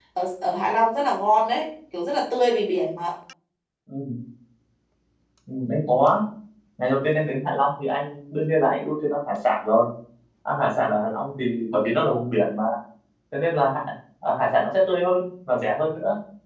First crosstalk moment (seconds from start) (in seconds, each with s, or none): none